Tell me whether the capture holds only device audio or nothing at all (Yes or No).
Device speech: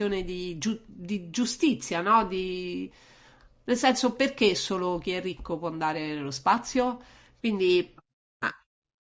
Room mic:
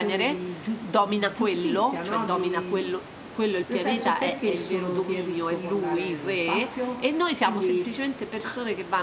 No